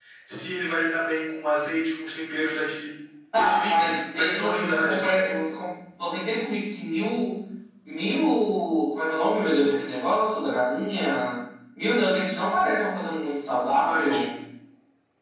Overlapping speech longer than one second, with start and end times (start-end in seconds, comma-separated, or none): 3.3-5.1